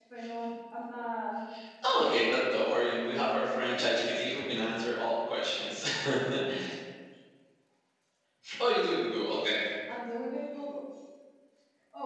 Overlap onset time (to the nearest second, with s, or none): 2 s